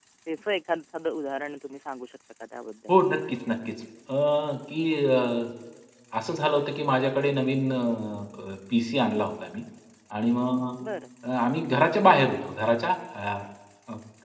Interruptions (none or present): none